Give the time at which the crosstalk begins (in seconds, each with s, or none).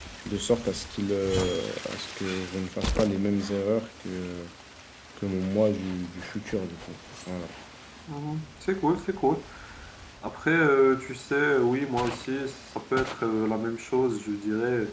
none